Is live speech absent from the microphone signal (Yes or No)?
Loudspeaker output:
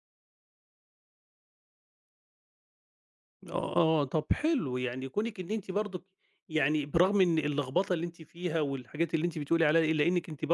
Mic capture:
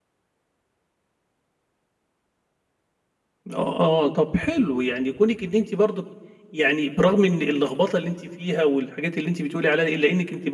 Yes